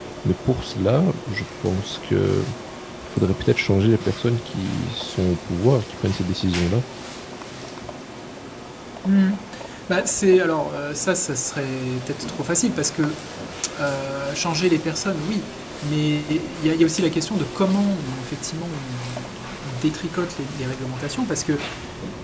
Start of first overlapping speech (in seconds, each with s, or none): none